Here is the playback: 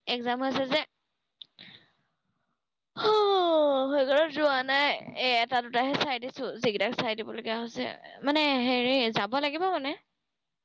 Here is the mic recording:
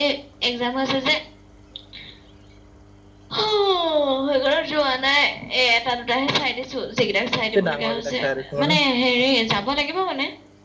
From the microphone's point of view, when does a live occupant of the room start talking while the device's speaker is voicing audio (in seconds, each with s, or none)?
7.5 s